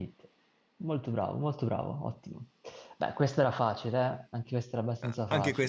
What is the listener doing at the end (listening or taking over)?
taking over